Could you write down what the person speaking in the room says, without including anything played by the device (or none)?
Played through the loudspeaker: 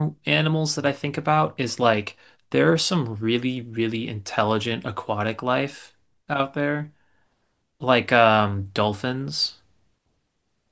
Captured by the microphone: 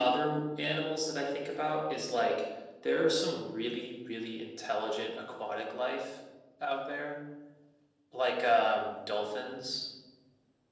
none